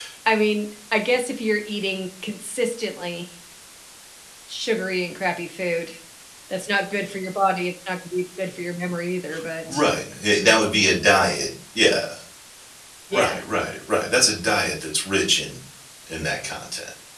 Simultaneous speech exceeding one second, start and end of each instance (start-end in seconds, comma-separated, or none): none